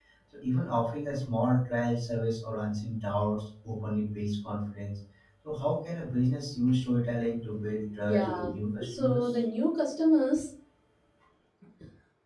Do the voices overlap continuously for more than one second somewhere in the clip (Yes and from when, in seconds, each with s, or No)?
Yes, from 8.0 s